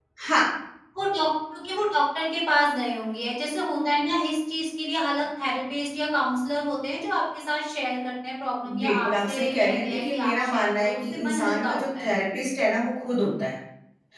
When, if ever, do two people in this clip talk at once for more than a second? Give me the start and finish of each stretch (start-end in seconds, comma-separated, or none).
8.8-12.2